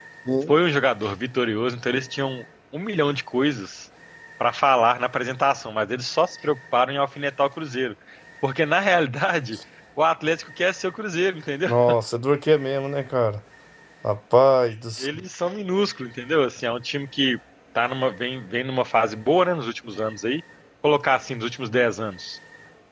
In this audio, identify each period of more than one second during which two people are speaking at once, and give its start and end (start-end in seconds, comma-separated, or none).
none